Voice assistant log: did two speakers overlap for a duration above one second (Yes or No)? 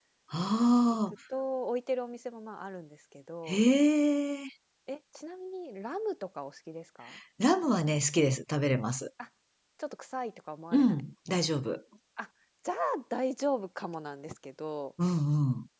No